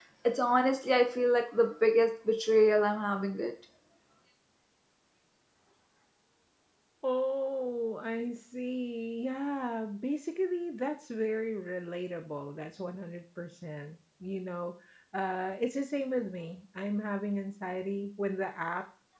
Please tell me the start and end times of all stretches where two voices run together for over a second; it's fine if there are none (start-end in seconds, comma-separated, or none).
none